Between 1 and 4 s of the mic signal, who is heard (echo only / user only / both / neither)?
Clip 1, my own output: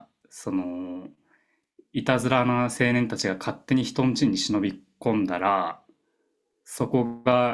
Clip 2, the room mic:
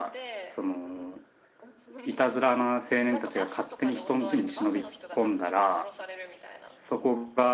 both